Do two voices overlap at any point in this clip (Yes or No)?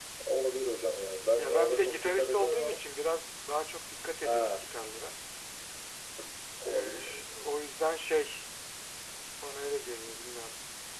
Yes